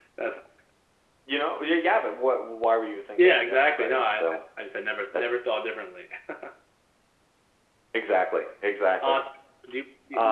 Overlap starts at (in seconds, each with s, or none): 3.2 s